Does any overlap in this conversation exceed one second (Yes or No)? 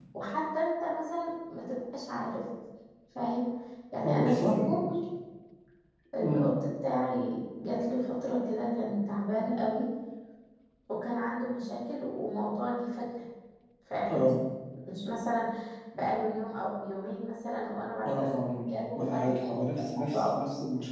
Yes